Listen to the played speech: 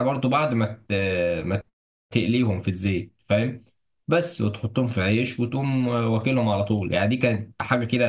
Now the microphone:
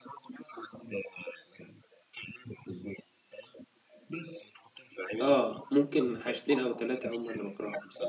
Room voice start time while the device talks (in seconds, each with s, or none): 5.2 s